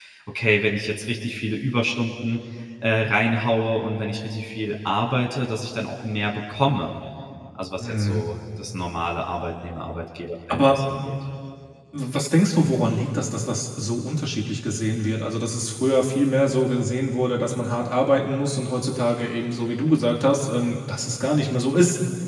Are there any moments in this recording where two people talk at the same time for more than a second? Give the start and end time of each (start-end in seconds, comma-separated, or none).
none